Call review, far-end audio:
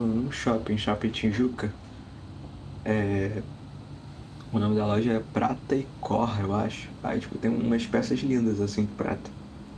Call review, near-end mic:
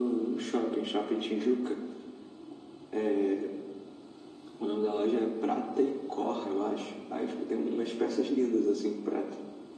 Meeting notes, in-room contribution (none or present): none